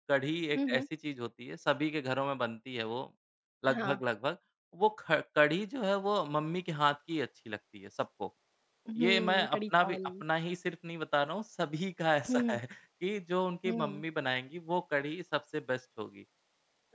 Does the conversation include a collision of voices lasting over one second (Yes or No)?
Yes